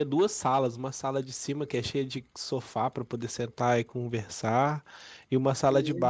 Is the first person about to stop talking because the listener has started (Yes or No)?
No